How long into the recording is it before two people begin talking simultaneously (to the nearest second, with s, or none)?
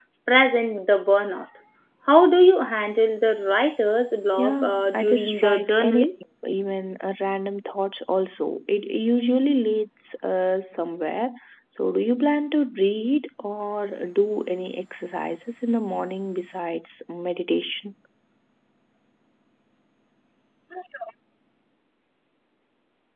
4 s